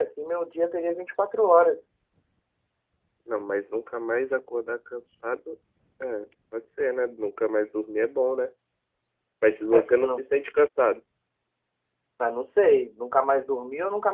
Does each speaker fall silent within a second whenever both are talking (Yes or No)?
Yes